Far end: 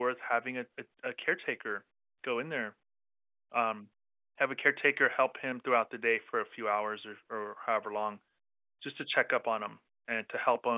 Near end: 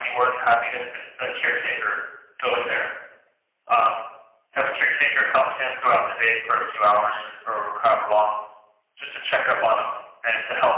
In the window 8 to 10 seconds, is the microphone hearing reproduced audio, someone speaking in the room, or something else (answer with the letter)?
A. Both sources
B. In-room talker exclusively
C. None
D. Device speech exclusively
D